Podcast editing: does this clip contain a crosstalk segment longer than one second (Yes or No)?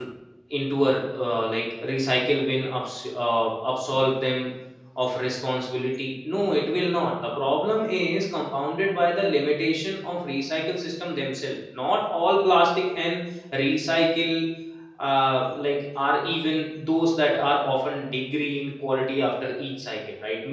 No